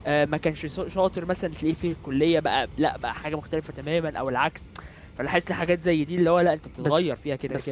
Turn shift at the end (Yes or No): Yes